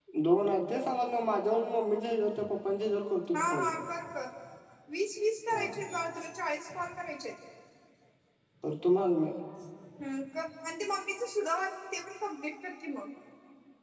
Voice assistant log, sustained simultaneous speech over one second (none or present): none